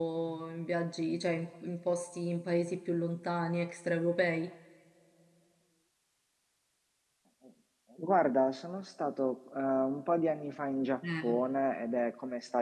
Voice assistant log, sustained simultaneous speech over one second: none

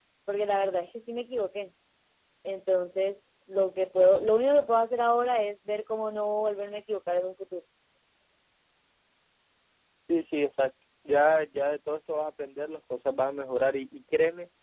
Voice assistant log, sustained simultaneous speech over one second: none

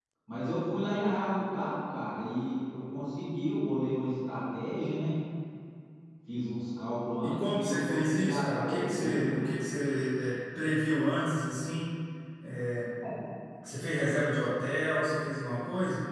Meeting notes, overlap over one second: present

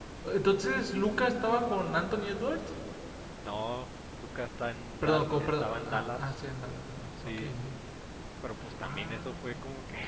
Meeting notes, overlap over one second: present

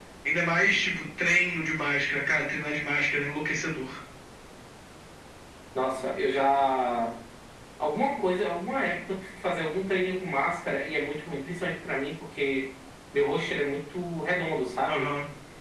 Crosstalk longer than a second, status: none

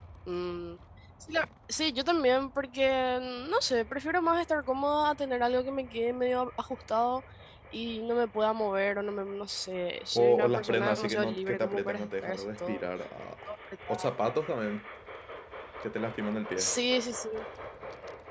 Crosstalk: present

